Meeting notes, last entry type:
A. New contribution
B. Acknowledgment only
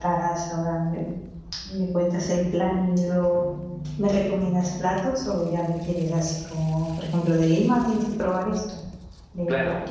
A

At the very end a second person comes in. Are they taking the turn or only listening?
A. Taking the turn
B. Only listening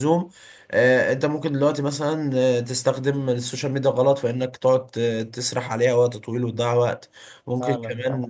B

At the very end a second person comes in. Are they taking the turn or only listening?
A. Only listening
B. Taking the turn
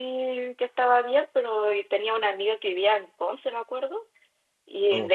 A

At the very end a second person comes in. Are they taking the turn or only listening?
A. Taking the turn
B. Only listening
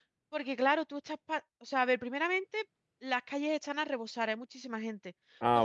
B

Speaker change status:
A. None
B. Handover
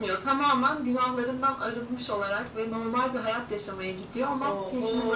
B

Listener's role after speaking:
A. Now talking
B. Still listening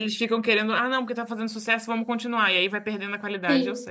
A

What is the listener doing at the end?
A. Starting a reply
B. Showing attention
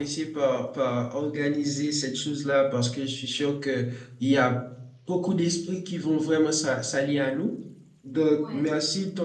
B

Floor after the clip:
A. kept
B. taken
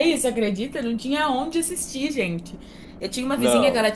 A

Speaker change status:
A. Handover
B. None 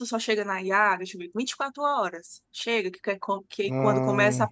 B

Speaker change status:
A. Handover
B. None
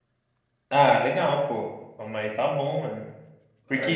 B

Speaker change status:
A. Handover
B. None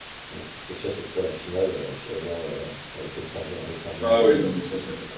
A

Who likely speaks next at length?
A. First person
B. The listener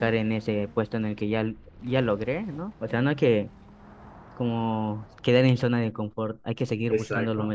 B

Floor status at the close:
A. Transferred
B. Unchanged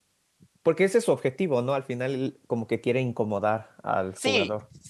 A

